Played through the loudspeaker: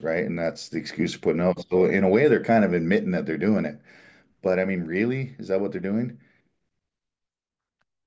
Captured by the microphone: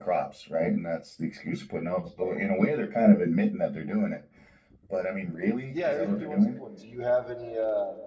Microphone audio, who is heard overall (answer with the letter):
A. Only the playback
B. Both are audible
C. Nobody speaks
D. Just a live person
B